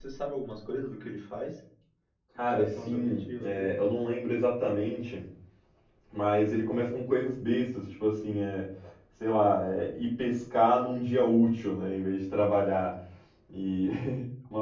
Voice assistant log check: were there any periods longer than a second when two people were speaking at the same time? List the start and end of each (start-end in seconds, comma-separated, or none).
2.5-3.8